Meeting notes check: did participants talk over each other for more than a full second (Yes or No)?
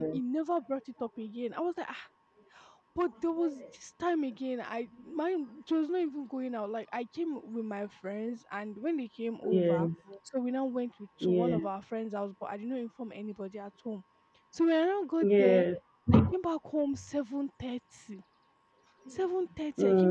No